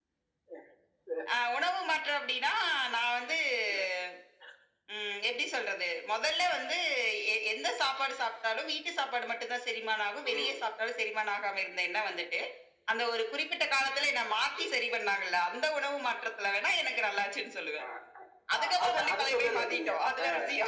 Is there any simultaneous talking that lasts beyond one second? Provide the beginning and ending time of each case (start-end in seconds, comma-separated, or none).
18.6-19.9